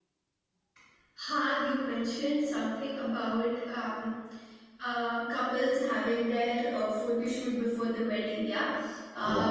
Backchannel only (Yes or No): Yes